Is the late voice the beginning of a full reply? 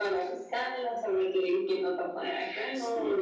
No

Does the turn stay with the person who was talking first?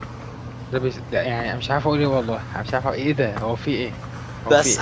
No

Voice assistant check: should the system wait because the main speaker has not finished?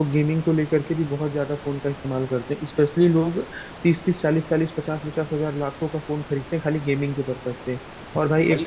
Yes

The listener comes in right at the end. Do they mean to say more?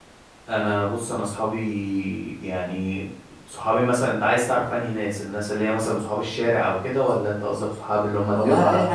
Yes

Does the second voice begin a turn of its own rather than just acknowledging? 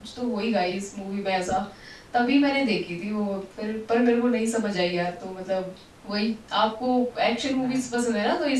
No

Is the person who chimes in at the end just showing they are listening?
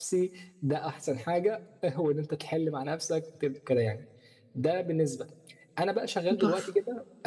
Yes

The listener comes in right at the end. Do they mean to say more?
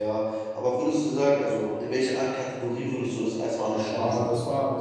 Yes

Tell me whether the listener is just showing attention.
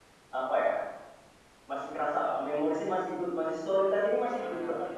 Yes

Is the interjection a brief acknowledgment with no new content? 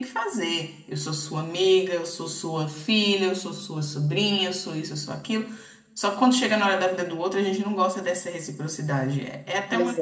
Yes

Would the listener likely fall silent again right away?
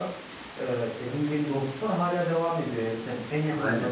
Yes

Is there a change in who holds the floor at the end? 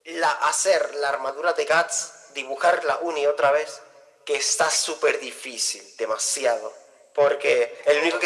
No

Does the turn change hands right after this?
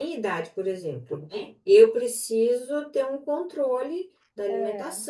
No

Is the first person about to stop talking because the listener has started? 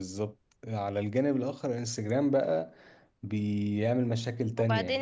Yes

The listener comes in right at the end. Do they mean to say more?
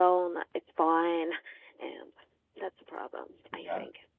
Yes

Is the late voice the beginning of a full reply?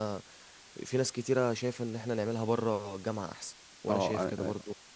Yes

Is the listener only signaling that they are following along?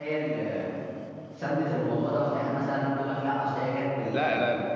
No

